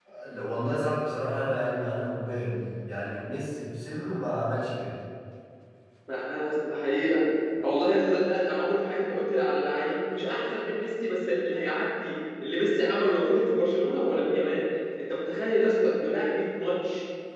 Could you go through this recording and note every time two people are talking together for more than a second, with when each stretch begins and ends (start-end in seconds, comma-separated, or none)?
none